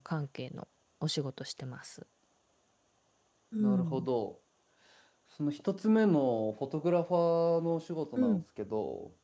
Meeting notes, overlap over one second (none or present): none